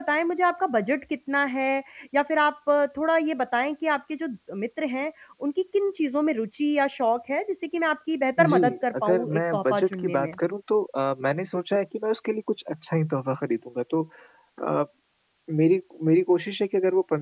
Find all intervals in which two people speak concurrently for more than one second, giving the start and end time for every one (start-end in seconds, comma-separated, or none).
9.0-10.4